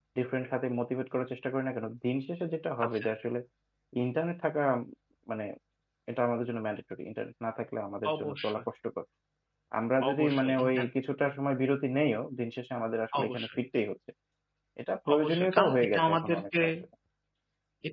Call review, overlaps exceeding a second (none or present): present